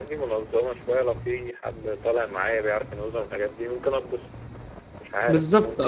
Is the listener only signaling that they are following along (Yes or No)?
No